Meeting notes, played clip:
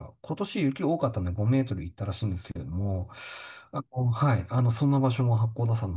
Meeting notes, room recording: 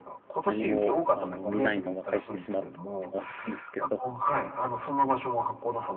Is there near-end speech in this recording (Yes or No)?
Yes